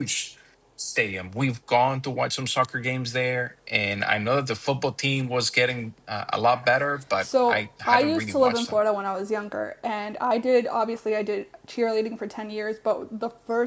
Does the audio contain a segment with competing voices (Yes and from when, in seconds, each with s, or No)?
Yes, from 7.2 s